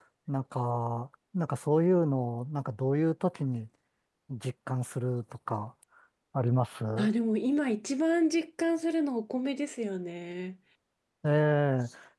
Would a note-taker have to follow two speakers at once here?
No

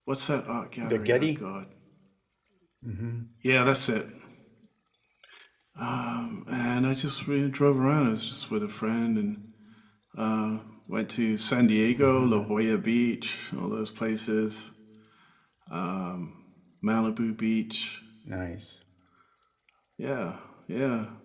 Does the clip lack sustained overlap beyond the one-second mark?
Yes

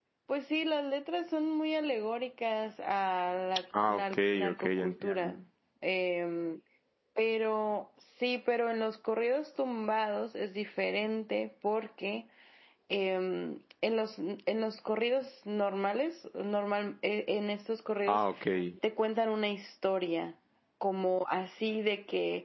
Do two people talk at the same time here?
Yes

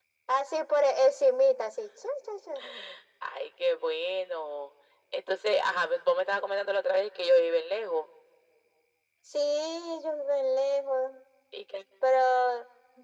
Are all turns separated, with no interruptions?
Yes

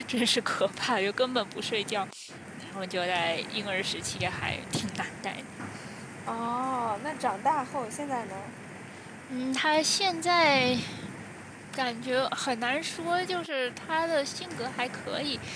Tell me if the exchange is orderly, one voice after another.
Yes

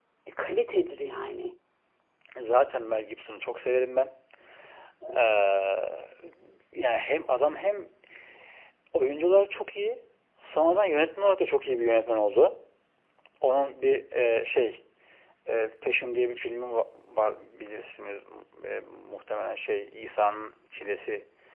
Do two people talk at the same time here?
No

